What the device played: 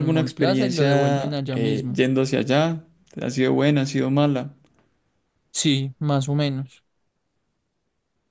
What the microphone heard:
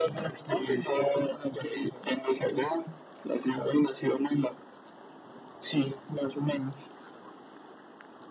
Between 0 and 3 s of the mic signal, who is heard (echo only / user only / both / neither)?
echo only